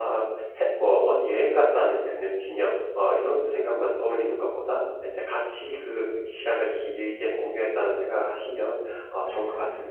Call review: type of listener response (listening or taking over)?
taking over